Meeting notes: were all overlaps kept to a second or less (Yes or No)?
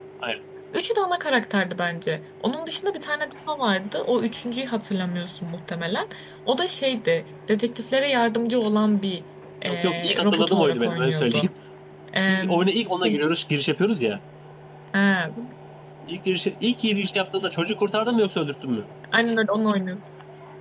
No